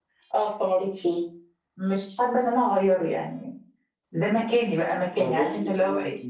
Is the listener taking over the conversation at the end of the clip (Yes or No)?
Yes